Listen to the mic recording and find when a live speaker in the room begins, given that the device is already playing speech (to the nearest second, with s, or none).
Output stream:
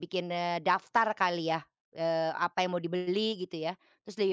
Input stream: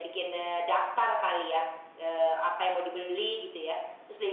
none